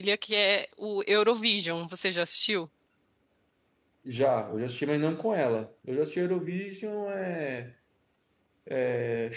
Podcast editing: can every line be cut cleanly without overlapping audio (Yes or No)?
Yes